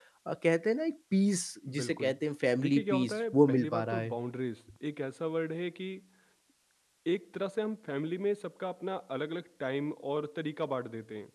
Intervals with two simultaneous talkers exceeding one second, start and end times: 2.6-4.2

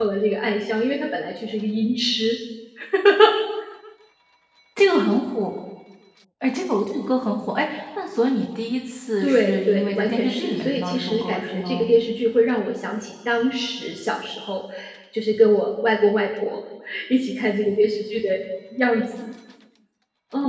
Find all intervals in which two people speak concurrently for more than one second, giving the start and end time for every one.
9.2-11.8

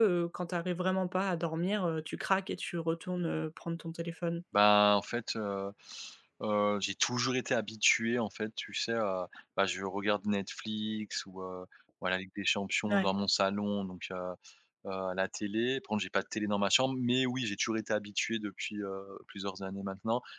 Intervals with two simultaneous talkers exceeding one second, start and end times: none

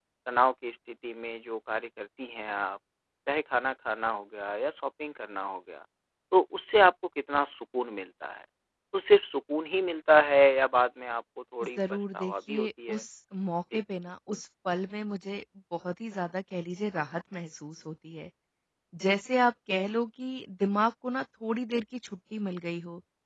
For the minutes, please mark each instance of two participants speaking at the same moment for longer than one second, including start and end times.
11.8-13.0

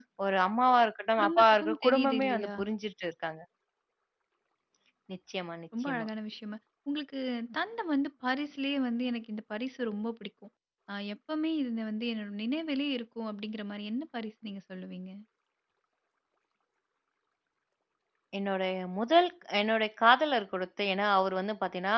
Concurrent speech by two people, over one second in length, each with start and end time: 1.2-2.5

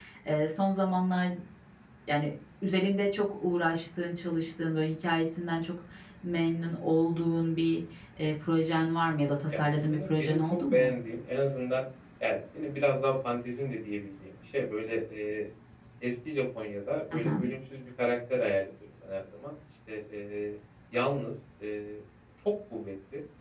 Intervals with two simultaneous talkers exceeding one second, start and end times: 9.5-10.9

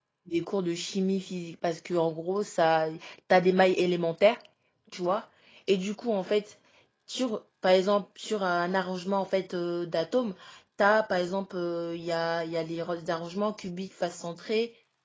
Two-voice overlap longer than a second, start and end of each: none

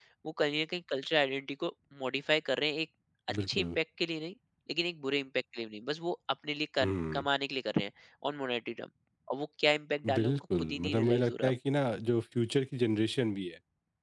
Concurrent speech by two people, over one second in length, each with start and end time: 10.1-11.5

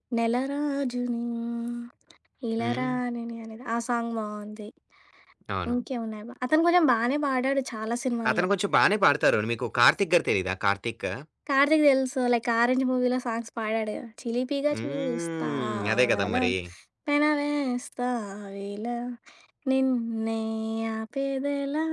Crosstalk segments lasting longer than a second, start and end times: 14.7-16.4

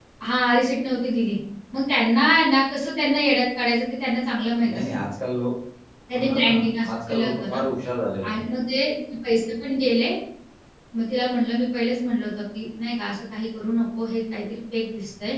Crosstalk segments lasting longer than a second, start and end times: 6.2-7.6

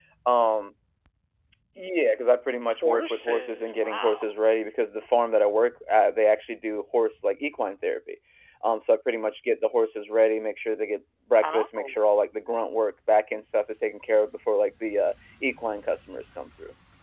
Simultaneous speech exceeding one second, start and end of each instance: 2.7-4.2

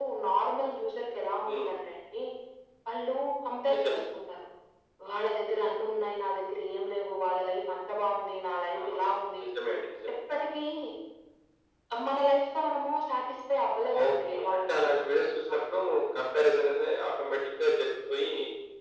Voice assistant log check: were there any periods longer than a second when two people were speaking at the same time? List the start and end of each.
14.0-15.6

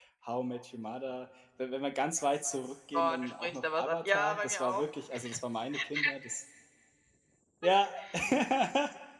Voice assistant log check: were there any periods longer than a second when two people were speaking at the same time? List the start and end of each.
2.9-4.8

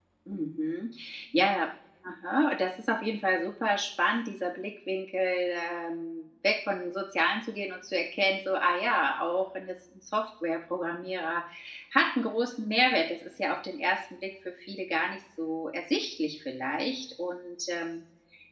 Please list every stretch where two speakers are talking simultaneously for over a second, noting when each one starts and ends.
none

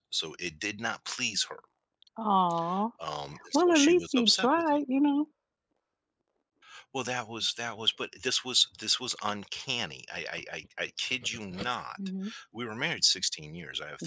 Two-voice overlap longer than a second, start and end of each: 3.5-4.8

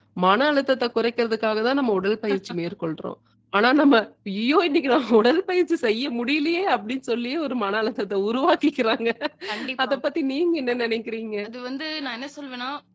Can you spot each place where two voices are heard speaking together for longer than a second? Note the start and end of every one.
none

